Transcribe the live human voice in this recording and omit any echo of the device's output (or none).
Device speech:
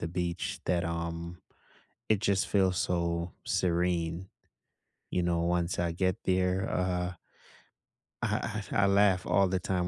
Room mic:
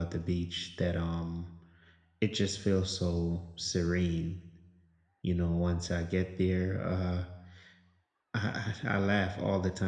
none